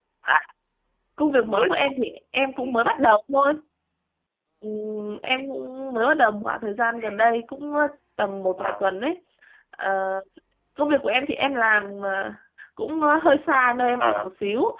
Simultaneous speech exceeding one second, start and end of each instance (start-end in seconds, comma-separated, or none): none